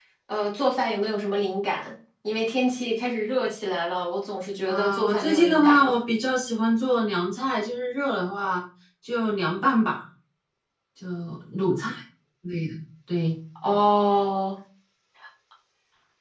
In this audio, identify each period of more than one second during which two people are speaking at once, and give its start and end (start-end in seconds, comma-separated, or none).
4.7-6.0